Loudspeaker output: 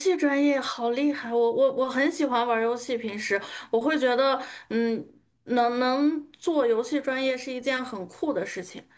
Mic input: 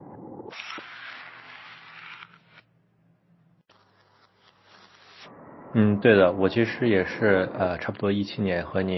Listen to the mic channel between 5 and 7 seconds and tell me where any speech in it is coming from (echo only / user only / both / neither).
user only